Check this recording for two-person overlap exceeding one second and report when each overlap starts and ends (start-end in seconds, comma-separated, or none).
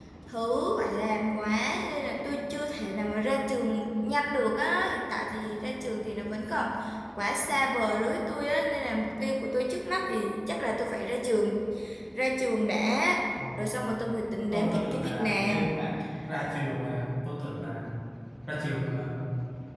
14.5-15.8